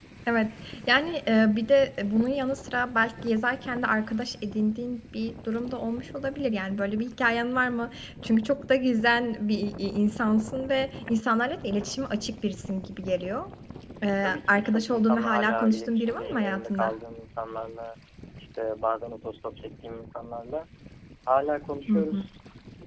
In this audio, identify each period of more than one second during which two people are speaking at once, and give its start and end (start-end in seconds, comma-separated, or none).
14.2-16.9